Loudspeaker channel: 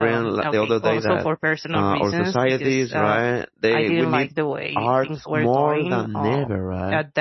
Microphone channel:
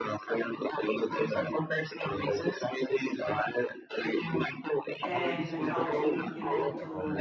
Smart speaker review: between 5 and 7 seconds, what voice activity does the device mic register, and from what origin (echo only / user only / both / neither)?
both